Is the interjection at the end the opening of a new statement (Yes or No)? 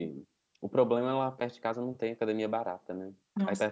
Yes